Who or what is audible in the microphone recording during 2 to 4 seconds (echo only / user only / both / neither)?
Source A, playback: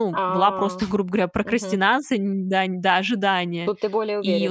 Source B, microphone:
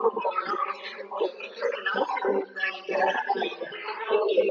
echo only